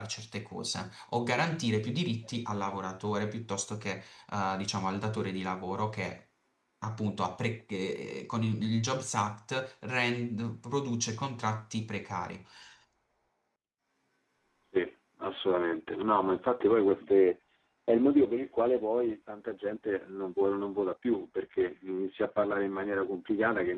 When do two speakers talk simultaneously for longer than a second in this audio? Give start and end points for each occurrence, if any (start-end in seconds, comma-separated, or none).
none